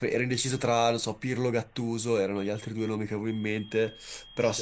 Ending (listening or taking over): listening